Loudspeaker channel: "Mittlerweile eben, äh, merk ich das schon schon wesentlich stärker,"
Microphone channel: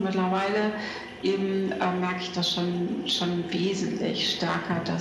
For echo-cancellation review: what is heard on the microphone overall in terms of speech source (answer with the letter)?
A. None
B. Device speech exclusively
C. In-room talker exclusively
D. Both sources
B